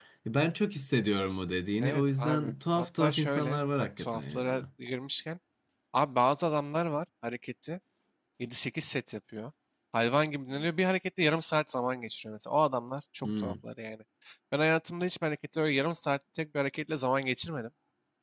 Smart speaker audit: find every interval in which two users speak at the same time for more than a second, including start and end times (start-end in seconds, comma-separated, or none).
1.8-4.6